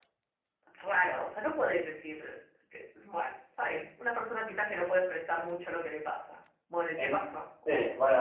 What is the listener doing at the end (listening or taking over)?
taking over